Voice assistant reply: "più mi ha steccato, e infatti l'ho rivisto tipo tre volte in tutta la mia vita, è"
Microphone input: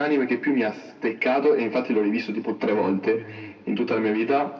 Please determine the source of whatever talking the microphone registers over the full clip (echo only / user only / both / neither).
both